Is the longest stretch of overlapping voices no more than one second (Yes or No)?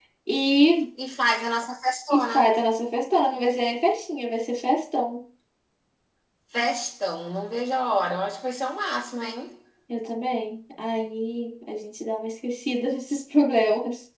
Yes